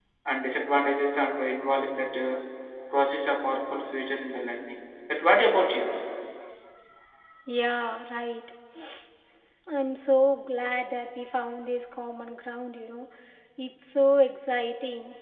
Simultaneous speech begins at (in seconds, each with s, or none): none